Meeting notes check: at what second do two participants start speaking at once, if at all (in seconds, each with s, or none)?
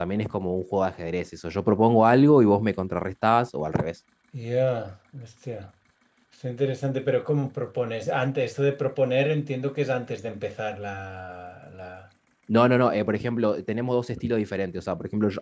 none